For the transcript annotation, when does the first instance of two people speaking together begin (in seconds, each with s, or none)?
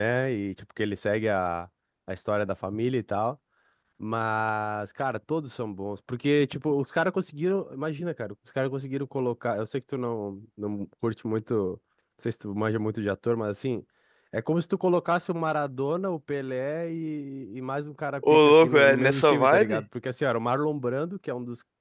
18.2 s